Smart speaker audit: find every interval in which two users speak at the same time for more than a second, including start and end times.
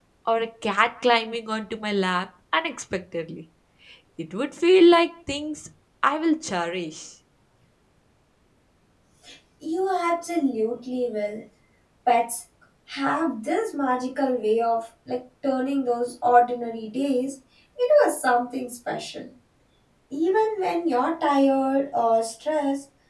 none

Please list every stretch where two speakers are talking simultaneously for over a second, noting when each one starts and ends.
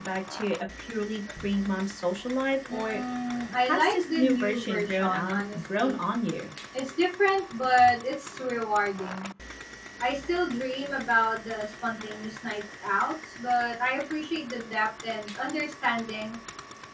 3.7-6.0

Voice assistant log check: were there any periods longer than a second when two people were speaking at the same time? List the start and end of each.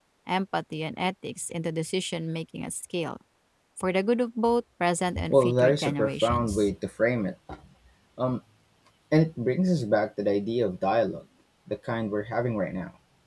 5.3-6.7

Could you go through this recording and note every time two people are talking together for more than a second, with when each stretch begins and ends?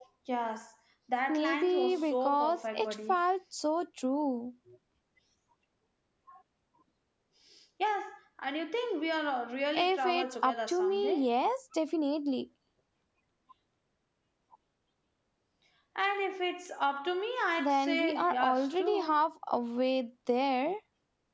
1.3-3.2, 9.8-11.3, 17.6-19.2

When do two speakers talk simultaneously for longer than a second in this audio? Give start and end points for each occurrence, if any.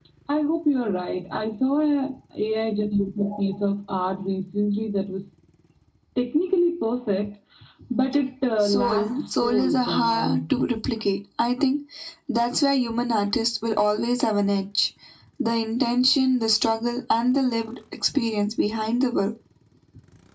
8.6-10.4

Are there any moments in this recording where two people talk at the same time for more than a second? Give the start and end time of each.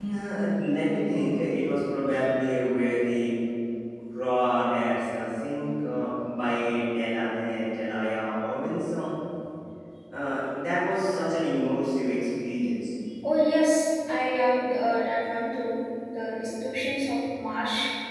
none

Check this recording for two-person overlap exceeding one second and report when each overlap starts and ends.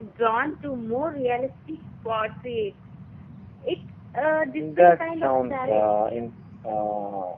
4.6-6.0

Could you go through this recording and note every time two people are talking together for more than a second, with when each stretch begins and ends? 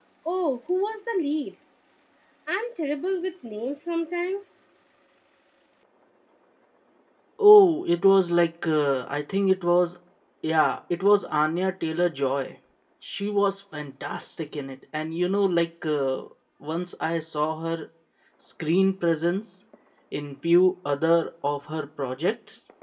none

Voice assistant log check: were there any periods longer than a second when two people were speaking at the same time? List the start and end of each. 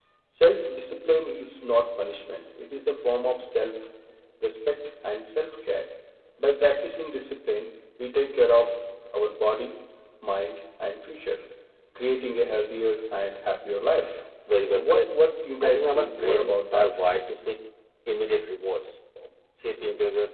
15.6-16.9

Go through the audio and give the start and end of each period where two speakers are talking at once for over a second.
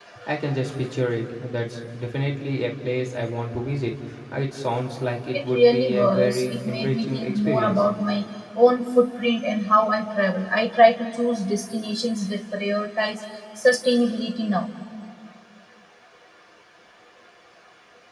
5.3-7.8

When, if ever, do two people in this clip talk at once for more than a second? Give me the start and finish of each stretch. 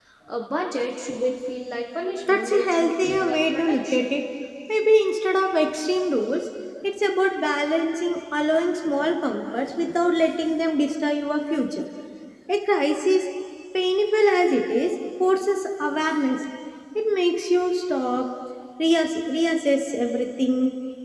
2.3-4.0

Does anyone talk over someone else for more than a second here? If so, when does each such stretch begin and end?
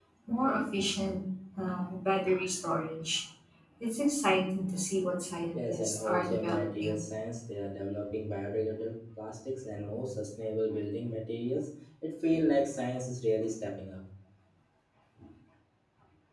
5.5-7.0

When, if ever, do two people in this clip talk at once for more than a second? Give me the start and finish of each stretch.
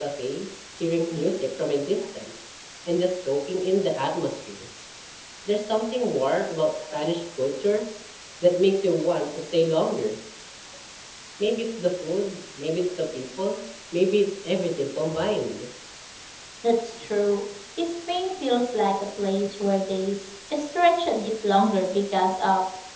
none

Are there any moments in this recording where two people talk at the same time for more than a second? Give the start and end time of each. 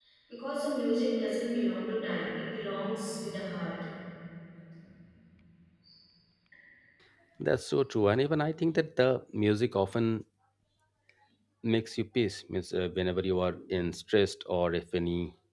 none

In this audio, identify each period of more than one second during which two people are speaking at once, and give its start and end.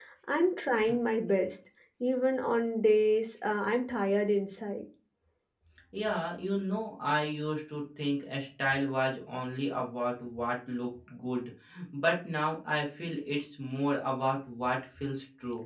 none

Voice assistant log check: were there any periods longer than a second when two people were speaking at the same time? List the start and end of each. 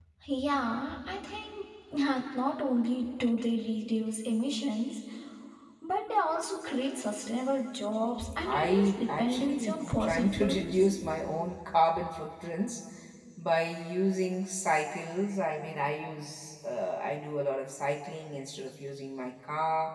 8.4-10.9

